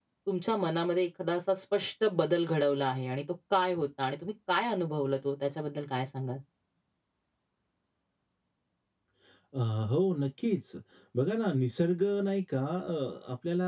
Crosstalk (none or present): none